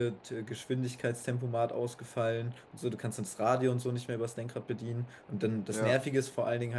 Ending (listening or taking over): listening